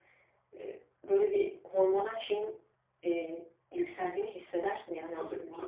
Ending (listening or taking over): taking over